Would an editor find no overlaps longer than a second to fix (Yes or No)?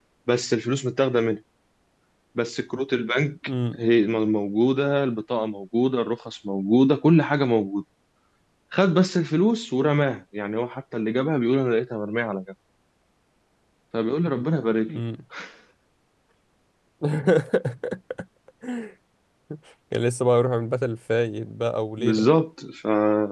Yes